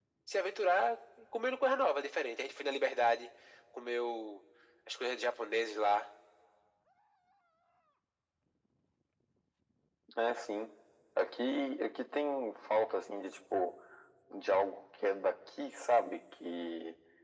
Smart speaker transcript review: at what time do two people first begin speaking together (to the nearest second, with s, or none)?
none